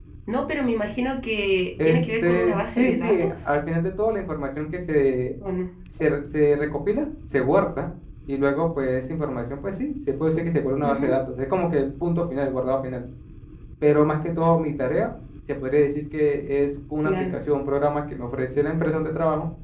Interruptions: present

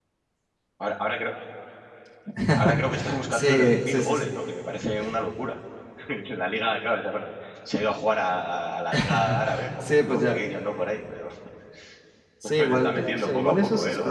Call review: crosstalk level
present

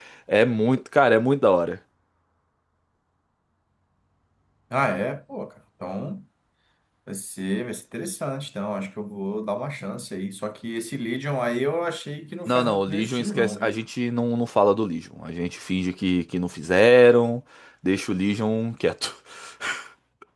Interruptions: present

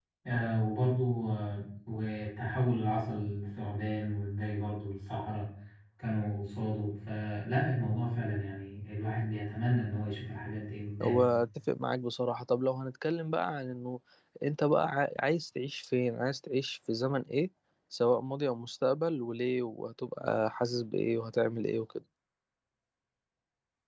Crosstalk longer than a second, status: none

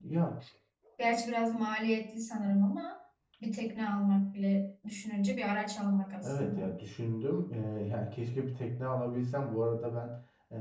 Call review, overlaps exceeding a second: none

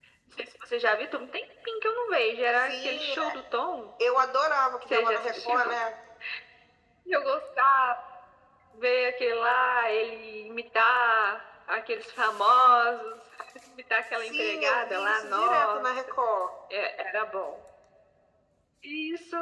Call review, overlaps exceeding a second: present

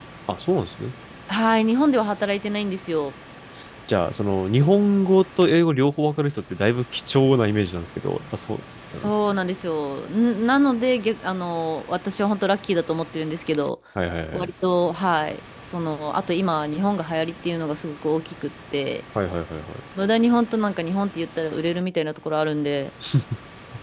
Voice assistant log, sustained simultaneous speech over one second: none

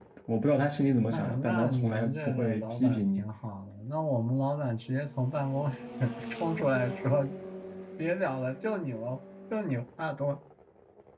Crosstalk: present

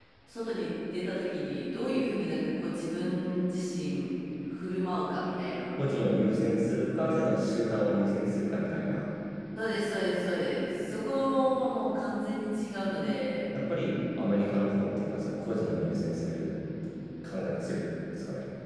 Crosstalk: none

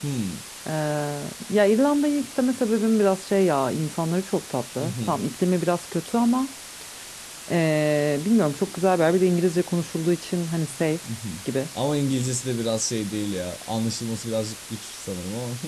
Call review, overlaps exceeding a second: none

